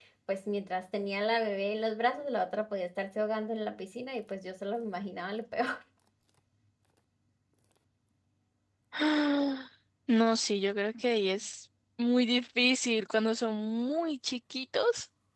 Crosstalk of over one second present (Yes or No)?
No